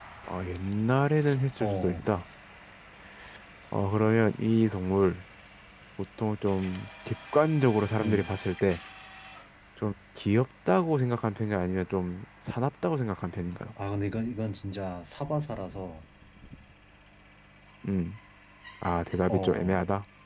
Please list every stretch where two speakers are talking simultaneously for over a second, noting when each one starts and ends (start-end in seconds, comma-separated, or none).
none